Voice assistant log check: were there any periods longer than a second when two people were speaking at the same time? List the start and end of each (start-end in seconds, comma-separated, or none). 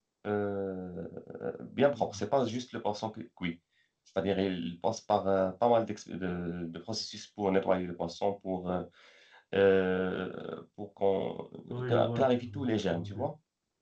11.9-13.3